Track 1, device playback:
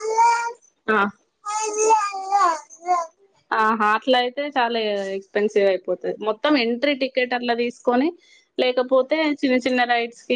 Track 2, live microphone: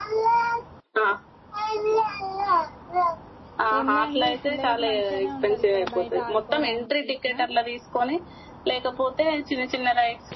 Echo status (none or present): present